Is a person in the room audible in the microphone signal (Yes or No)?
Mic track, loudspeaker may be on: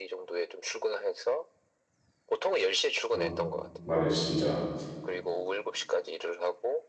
Yes